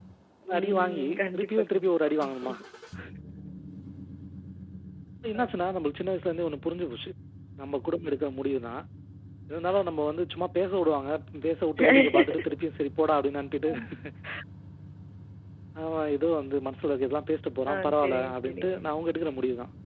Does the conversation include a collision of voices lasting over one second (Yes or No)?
Yes